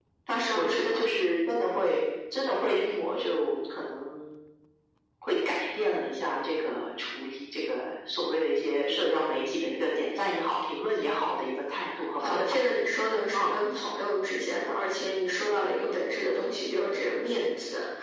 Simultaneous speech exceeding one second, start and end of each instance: none

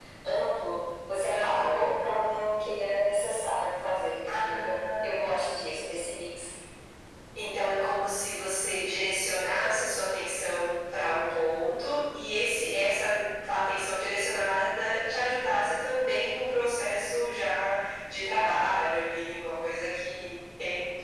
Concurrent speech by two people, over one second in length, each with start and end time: 4.3-5.9

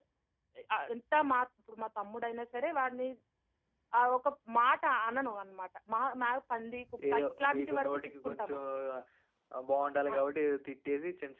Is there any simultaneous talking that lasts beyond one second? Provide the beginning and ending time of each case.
7.1-8.6

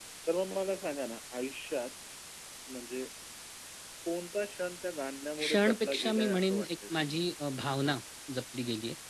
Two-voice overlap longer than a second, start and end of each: 5.4-7.2

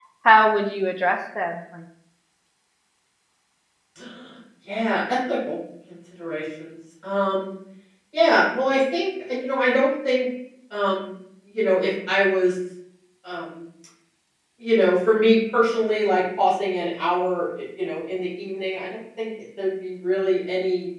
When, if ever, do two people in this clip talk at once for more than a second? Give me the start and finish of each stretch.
none

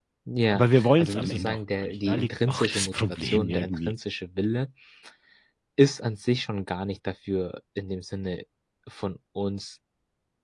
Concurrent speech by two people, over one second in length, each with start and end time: 0.5-3.9

